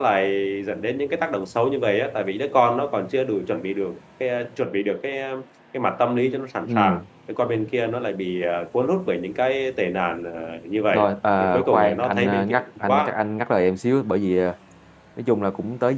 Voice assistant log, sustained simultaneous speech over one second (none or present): present